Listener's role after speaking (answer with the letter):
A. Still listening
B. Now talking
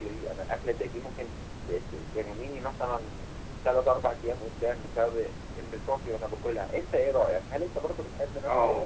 B